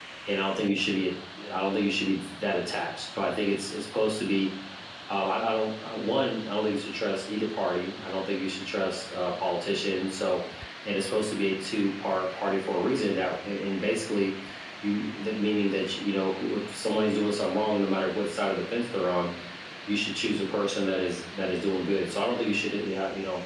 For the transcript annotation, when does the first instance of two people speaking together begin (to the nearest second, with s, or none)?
none